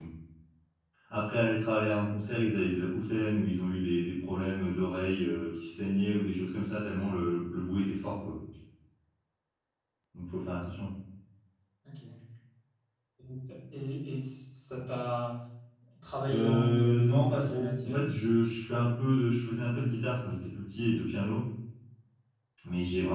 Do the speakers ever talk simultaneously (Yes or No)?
Yes